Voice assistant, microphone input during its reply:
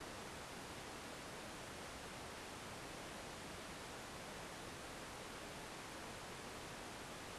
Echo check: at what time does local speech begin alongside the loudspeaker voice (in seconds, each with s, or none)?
none